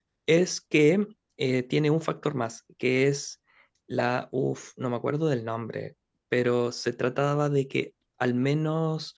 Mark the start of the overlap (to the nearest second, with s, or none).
none